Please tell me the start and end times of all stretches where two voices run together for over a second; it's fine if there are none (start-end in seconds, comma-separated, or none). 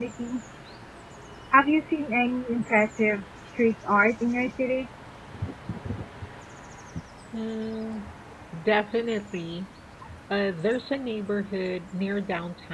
none